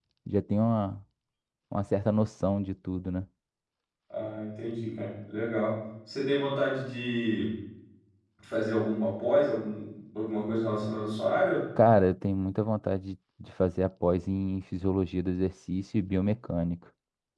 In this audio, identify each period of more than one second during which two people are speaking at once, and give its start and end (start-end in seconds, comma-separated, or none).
none